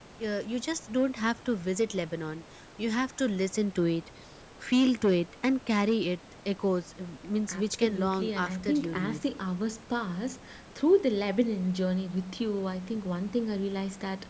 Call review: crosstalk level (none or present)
present